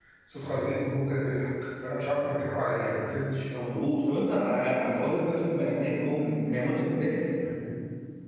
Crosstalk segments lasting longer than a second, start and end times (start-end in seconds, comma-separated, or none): none